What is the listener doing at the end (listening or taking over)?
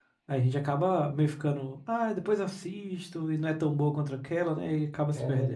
taking over